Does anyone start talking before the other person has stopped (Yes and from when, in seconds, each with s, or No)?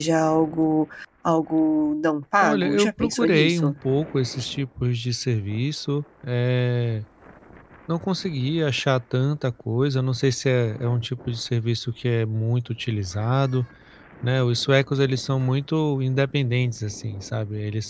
Yes, from 2.4 s